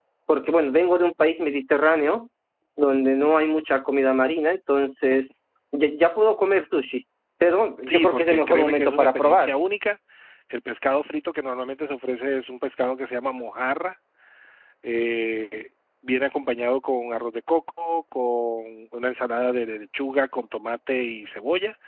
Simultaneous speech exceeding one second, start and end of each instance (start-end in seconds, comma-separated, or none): 7.9-9.5